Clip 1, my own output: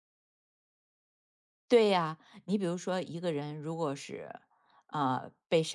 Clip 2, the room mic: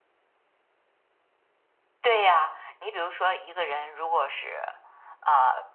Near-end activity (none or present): none